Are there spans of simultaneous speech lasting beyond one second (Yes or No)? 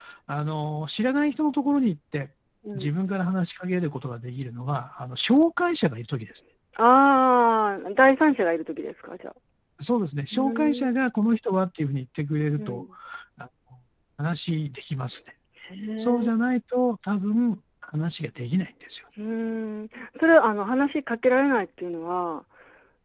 No